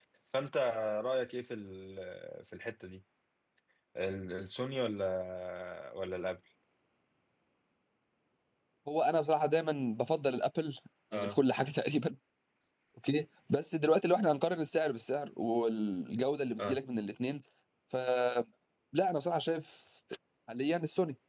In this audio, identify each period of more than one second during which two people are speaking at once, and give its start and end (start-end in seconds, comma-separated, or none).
none